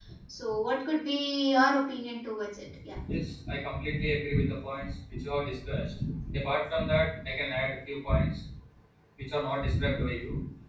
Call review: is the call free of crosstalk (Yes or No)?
Yes